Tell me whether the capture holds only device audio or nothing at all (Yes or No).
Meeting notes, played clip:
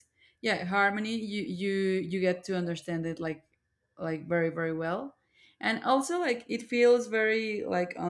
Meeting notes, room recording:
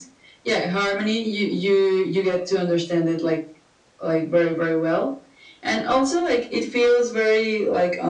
Yes